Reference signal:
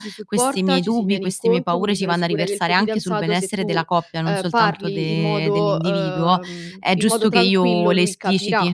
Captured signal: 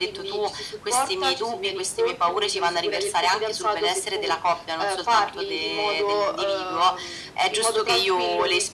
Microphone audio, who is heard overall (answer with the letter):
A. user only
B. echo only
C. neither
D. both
B